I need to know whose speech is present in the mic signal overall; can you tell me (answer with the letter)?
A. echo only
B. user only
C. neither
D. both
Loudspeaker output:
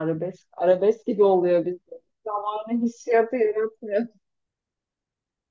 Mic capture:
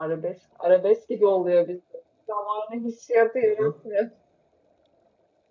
D